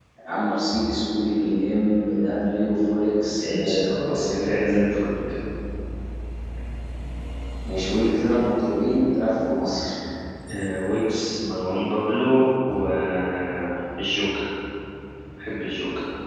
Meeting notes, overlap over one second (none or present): present